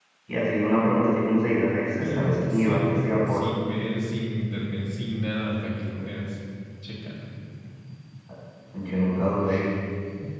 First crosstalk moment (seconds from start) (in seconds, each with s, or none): 2.0 s